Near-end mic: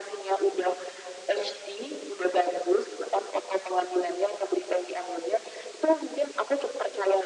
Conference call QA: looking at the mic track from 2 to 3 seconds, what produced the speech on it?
echo only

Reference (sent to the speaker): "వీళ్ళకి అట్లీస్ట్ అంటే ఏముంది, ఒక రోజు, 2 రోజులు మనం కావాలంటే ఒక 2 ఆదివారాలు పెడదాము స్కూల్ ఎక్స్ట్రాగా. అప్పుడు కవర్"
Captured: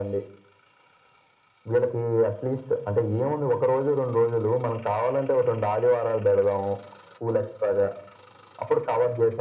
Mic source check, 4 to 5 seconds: echo only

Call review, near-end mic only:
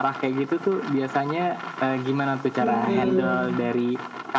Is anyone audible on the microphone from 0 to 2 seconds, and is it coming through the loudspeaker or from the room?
echo only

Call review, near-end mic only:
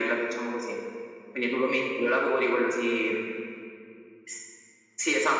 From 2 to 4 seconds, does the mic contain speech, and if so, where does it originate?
echo only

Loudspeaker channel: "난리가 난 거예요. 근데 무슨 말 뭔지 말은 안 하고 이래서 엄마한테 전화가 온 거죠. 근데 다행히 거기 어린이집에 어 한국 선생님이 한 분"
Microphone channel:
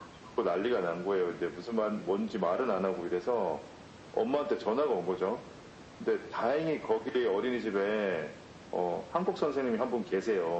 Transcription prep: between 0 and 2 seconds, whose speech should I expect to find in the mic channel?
echo only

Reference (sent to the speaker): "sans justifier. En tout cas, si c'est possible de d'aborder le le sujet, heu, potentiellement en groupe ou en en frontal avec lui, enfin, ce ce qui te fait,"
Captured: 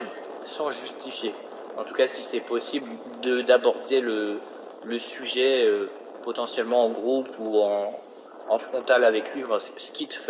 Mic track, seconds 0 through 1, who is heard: echo only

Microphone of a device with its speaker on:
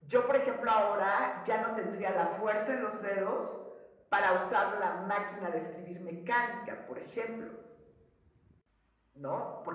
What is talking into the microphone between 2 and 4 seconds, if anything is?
echo only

